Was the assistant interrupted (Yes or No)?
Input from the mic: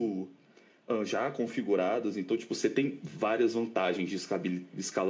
No